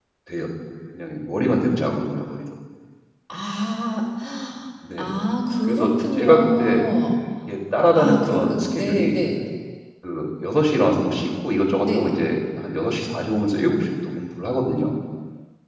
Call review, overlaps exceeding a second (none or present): present